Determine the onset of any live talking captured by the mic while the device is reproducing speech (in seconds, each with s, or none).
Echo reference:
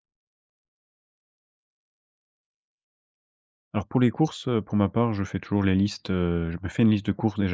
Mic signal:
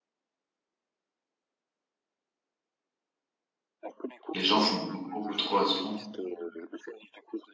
4.3 s